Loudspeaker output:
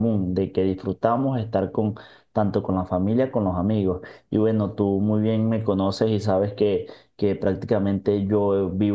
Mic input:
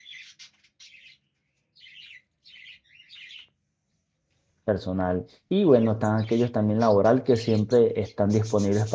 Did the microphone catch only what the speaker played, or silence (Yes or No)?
No